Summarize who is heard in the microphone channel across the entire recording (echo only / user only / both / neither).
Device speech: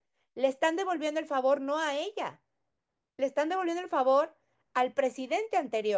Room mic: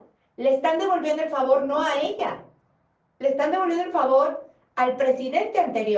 echo only